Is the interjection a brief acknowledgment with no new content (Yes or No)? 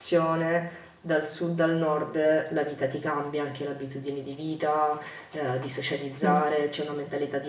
Yes